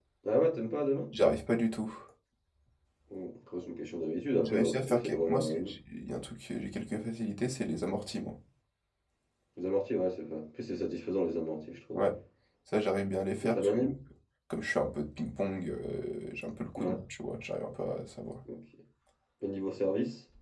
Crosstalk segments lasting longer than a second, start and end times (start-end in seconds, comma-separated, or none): 4.4-5.7